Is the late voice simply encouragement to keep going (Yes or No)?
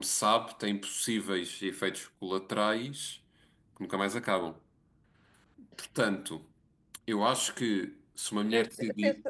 No